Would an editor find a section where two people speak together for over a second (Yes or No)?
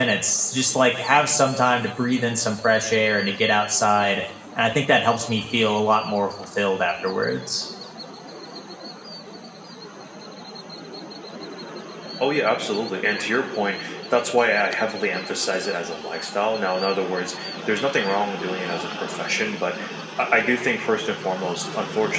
No